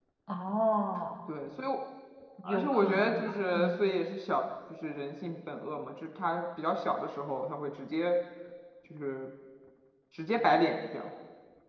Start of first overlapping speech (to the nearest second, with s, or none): 2 s